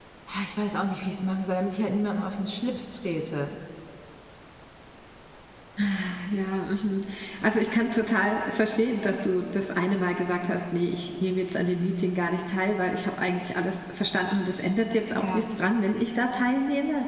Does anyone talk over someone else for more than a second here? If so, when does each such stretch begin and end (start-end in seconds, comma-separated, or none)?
none